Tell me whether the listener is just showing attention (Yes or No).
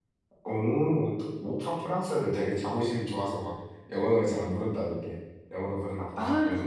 No